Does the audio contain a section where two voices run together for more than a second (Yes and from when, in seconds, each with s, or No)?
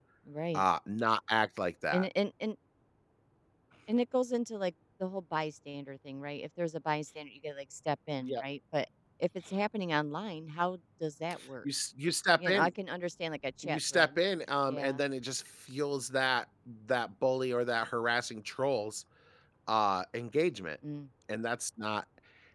No